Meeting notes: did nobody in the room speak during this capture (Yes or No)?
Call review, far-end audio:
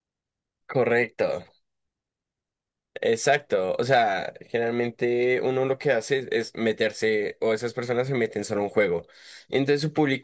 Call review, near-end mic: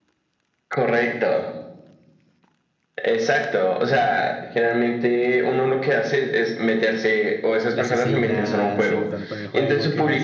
No